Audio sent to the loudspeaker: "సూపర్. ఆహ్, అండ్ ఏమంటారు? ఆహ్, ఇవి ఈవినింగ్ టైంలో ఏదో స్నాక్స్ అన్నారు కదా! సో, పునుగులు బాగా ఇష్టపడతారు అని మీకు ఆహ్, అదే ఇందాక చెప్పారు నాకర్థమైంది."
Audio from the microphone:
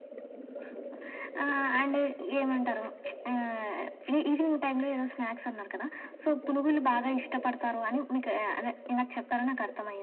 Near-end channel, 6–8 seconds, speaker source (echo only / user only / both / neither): echo only